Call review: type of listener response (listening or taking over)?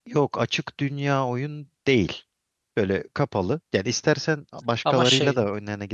listening